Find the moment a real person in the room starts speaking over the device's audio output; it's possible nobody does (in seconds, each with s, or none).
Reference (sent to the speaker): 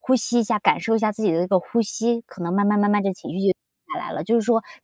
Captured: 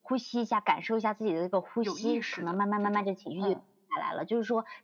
1.8 s